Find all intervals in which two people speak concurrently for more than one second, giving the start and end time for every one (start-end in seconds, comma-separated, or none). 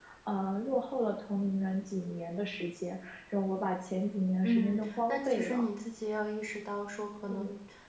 4.4-5.6